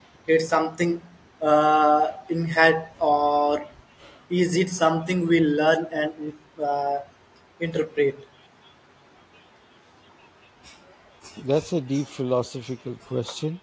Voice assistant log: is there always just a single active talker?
Yes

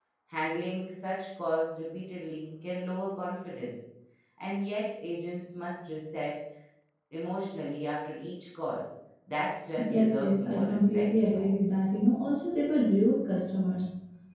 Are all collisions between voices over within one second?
No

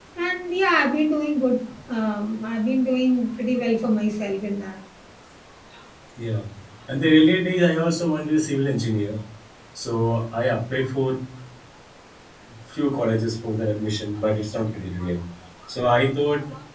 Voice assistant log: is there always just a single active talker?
Yes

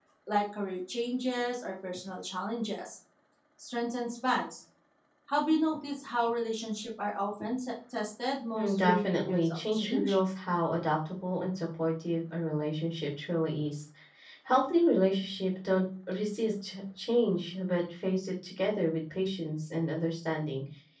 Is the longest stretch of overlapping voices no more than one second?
No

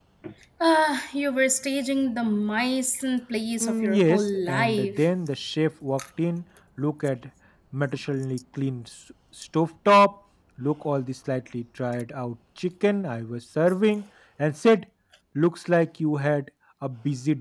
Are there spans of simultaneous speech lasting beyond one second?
Yes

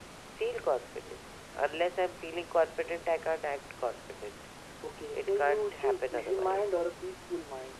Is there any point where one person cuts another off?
Yes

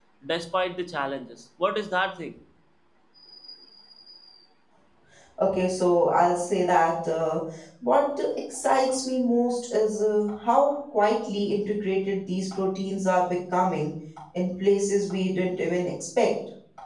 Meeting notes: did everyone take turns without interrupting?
Yes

